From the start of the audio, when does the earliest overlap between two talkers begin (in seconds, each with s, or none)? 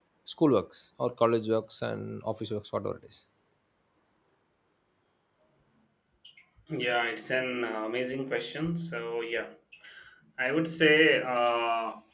none